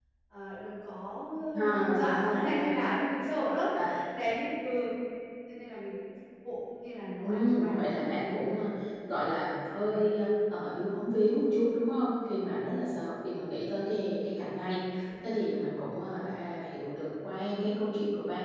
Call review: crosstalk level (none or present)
present